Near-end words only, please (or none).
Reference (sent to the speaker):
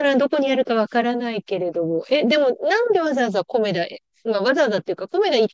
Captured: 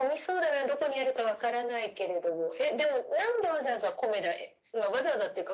none